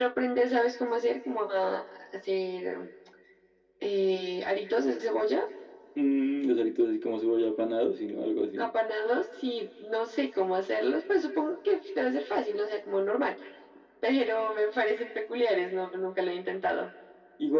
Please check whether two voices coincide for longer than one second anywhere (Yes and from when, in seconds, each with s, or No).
No